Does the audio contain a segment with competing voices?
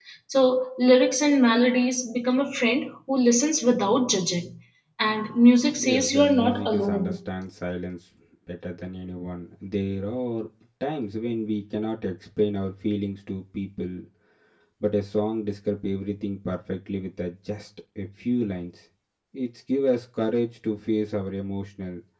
Yes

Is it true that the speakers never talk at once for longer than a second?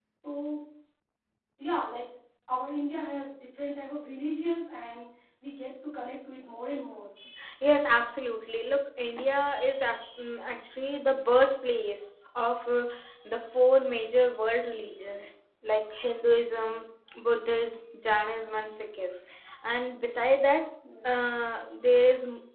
Yes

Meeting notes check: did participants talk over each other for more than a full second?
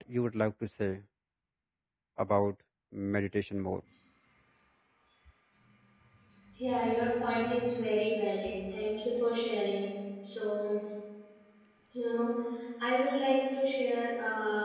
No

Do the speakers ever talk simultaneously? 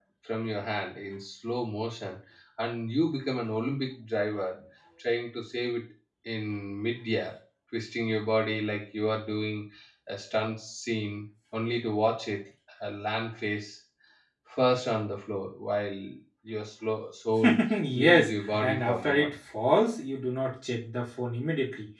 Yes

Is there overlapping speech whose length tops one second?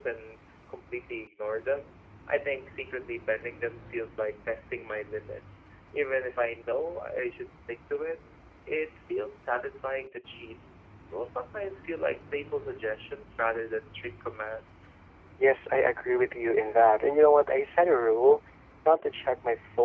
No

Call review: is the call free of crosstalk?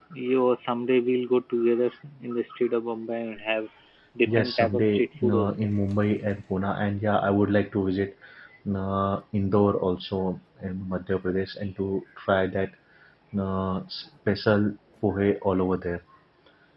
No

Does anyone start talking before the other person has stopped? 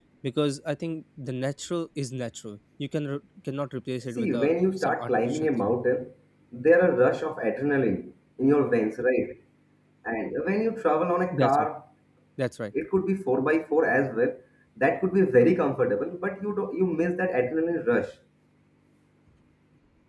Yes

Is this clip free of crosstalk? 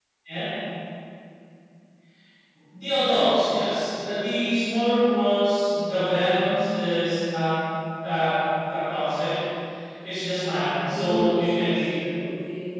No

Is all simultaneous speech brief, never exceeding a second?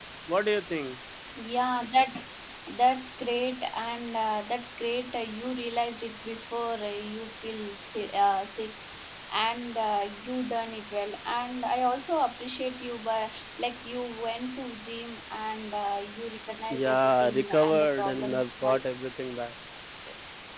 No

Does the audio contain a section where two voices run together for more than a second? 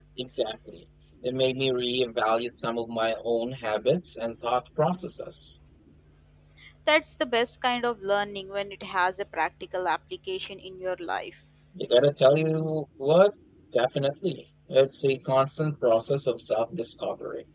No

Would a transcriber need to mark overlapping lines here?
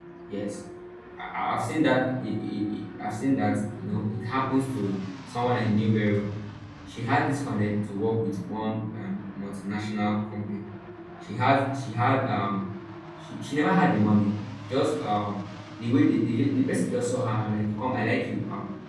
No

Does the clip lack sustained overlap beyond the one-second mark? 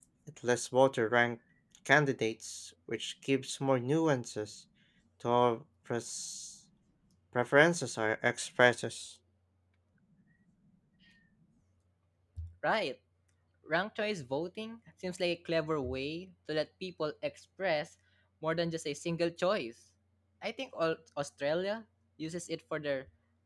Yes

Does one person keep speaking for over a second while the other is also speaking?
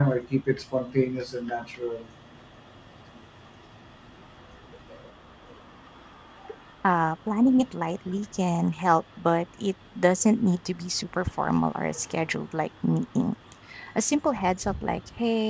No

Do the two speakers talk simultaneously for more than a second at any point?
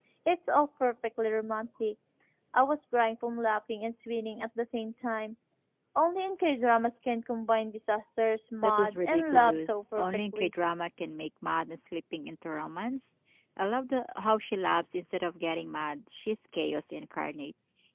Yes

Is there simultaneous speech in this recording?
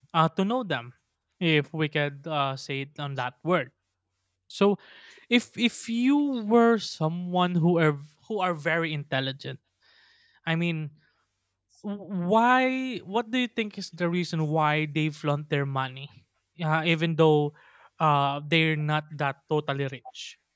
No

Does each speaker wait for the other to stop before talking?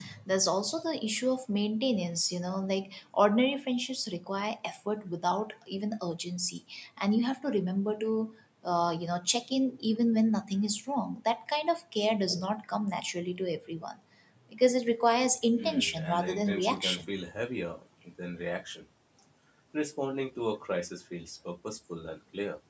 No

